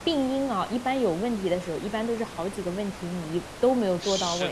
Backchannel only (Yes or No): No